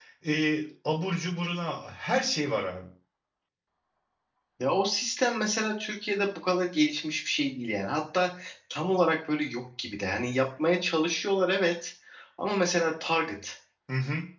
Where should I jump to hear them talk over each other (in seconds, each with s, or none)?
none